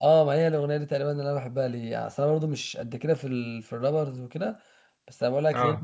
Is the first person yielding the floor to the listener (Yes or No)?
No